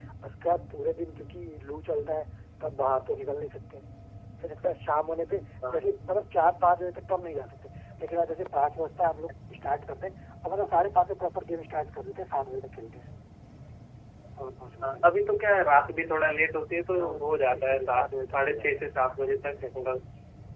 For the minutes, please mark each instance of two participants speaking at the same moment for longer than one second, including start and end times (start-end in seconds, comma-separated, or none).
17.6-18.8